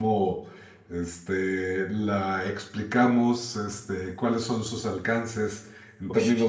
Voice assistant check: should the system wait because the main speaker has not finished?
Yes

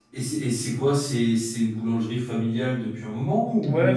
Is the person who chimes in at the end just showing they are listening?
No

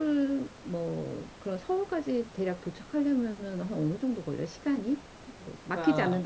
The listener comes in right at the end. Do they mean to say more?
Yes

